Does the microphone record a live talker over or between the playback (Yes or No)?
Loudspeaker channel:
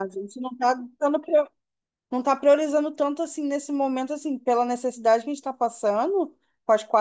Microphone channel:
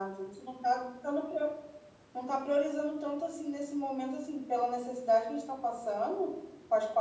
No